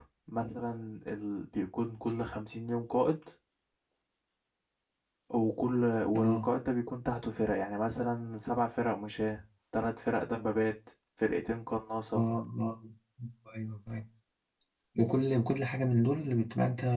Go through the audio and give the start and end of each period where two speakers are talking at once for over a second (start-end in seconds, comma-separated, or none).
none